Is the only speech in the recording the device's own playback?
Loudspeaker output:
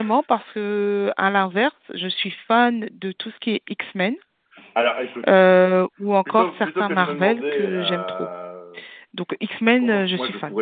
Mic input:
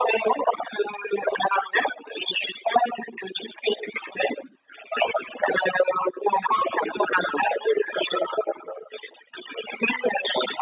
Yes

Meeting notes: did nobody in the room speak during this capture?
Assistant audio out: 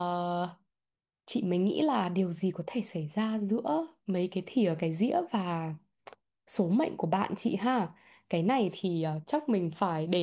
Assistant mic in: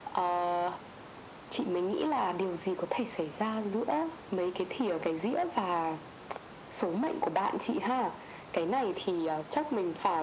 Yes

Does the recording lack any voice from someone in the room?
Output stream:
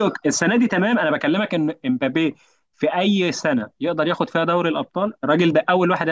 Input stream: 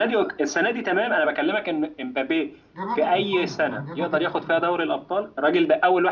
No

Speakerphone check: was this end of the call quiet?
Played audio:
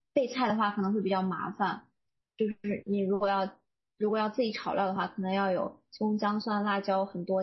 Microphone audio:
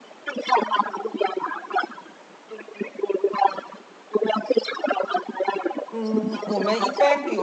No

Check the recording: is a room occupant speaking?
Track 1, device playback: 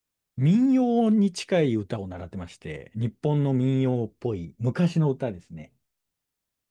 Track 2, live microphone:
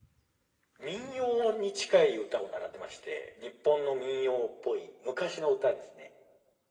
No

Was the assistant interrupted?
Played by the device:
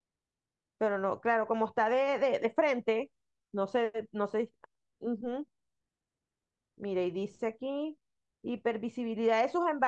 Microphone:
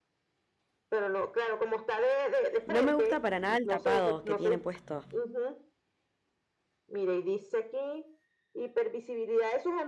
Yes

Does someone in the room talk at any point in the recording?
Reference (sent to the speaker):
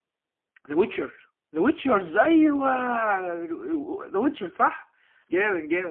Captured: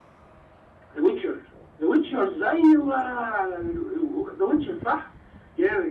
No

